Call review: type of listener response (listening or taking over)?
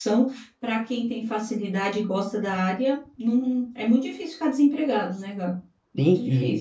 taking over